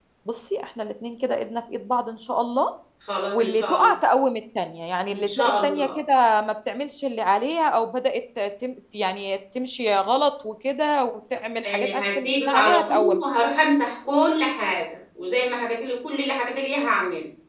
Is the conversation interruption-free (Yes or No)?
No